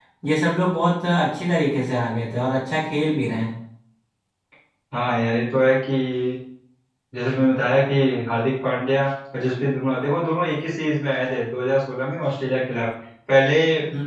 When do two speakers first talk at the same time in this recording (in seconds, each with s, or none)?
none